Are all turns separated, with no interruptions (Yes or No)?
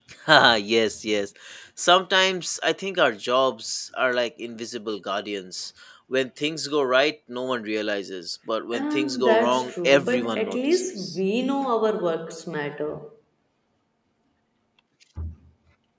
No